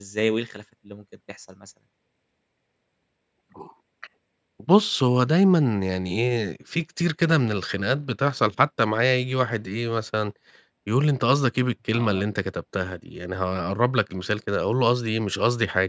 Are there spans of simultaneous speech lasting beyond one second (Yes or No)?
No